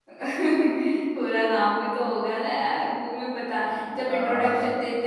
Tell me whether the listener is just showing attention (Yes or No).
Yes